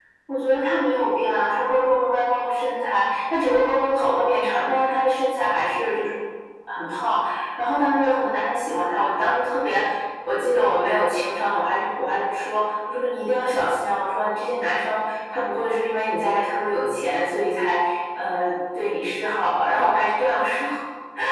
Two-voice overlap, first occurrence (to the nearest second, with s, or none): none